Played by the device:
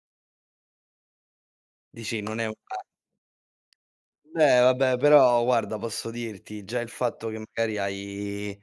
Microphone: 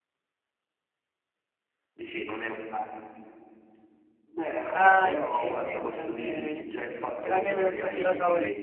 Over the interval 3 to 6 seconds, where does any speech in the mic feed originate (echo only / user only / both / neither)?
both